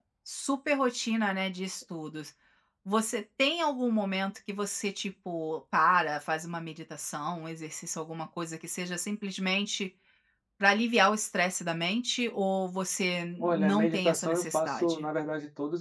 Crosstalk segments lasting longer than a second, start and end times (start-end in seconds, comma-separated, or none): 13.4-15.1